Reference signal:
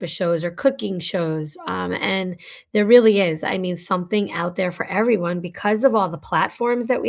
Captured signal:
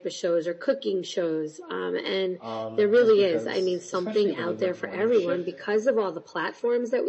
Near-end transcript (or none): um, just because, especially when you work morning shift,